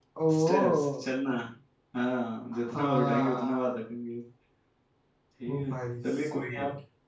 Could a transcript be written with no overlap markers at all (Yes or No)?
No